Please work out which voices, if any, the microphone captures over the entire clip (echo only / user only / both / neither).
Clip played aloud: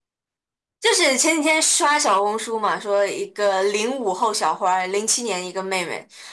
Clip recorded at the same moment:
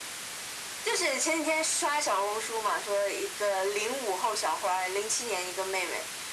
echo only